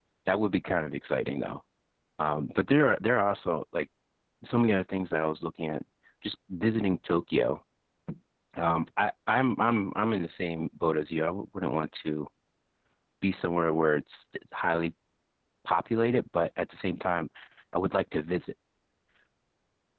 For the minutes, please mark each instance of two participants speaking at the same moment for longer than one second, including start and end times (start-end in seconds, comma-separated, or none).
none